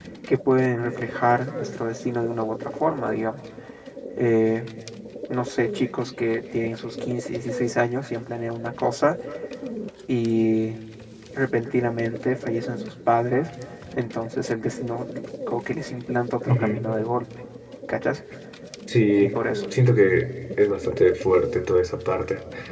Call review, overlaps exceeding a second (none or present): none